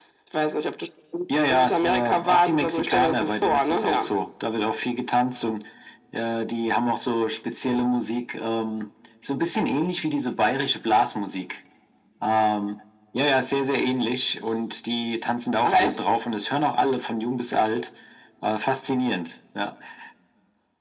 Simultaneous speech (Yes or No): Yes